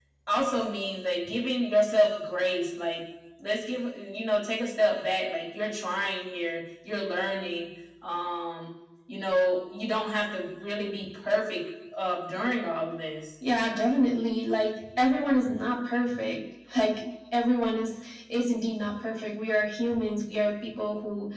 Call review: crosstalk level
none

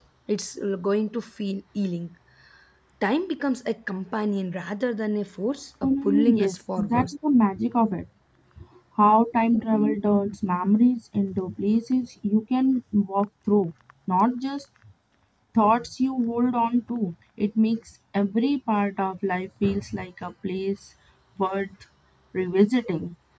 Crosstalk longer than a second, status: present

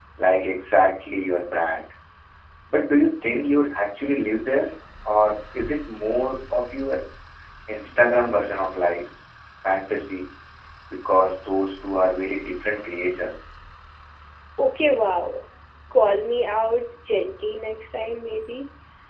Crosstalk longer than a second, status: none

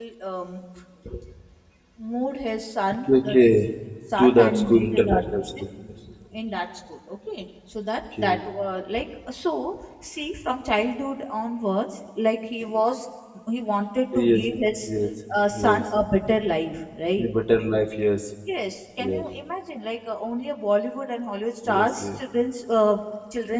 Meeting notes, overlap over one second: present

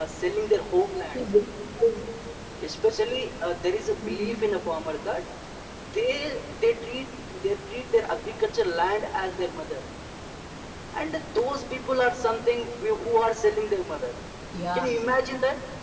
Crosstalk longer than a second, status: none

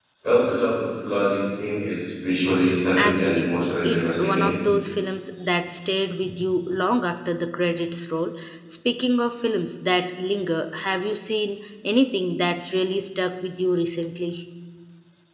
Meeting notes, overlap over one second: present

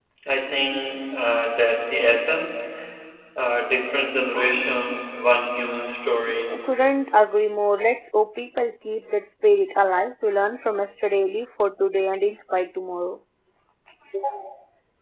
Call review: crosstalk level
none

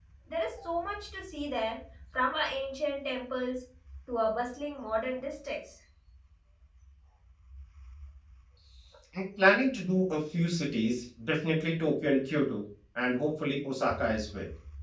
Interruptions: none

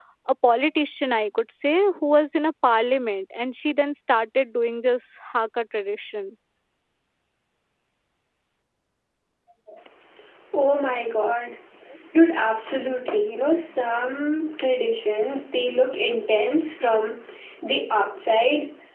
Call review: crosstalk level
none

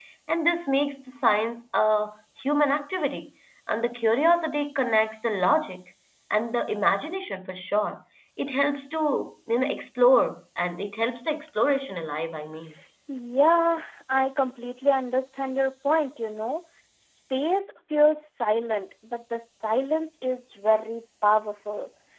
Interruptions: none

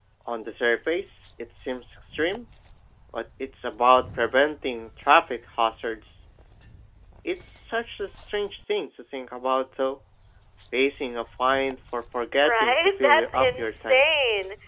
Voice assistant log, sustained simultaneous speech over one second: present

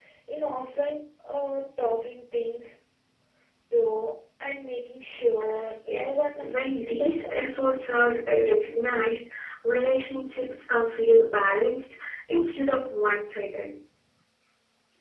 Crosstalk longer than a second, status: present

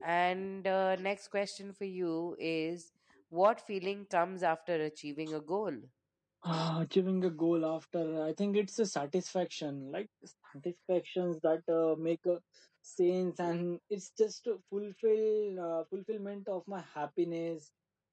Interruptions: none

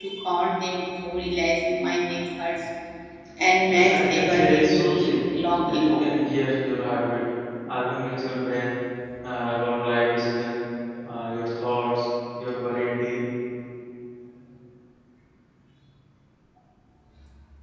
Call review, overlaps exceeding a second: present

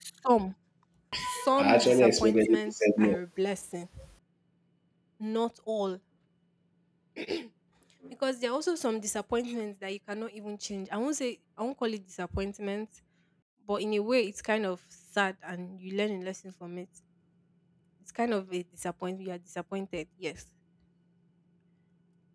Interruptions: present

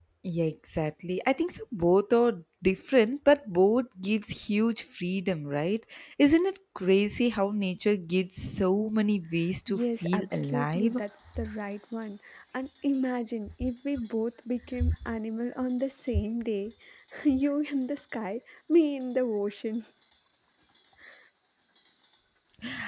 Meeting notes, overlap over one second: present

